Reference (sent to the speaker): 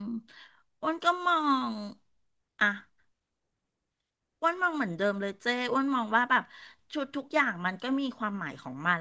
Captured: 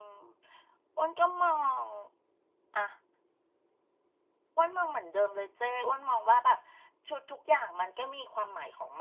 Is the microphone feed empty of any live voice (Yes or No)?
Yes